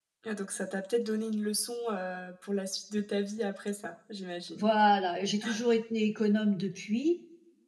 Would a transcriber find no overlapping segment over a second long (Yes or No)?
Yes